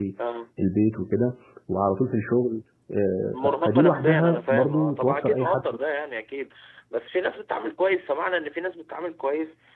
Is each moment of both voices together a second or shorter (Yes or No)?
No